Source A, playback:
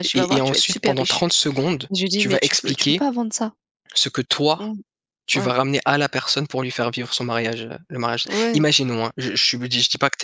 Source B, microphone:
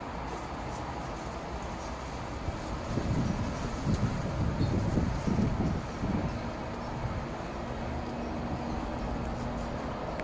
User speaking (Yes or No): No